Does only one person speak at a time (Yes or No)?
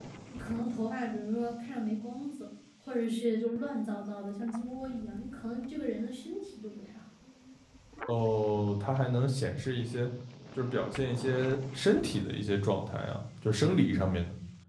Yes